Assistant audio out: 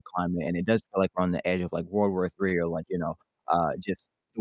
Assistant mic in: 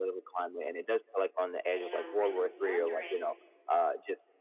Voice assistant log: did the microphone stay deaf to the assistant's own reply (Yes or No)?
No